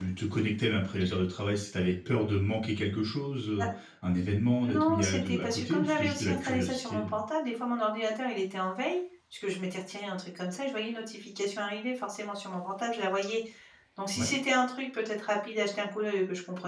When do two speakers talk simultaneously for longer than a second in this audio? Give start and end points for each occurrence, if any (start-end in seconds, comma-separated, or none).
4.6-7.2